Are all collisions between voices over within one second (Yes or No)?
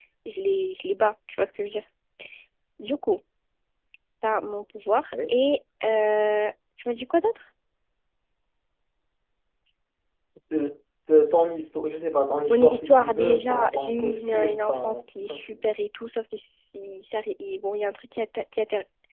No